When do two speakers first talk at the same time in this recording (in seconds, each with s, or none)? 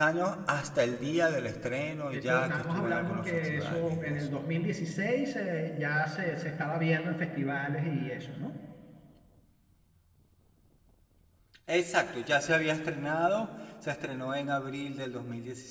2.1 s